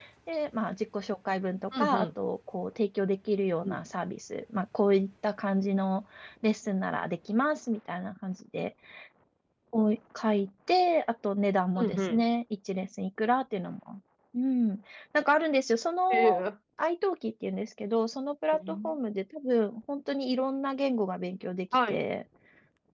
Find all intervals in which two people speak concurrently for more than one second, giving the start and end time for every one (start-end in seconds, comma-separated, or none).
none